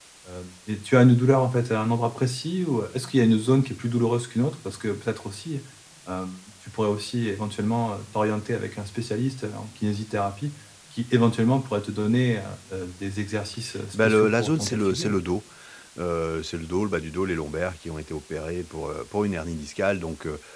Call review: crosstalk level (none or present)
present